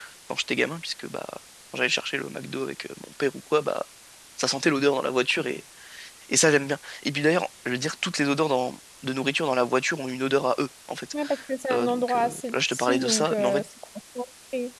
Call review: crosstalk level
present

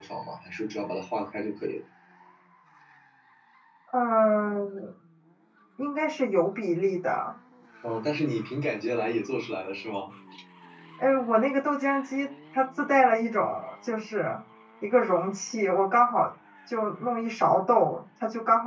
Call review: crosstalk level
none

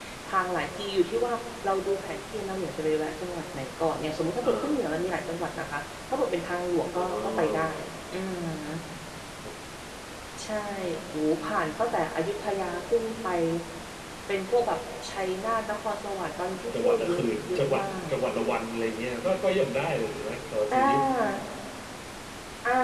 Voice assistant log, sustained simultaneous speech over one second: present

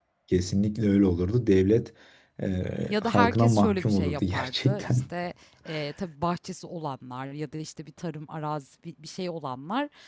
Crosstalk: present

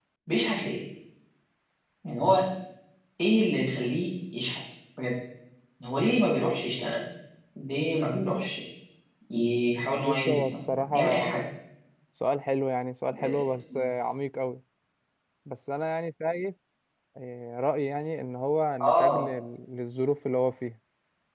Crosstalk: present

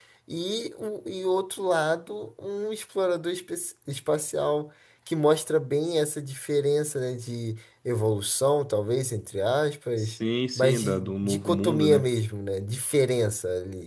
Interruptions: present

